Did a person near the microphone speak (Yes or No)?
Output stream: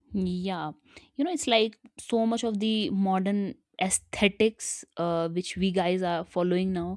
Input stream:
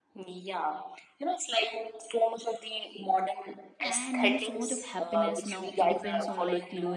Yes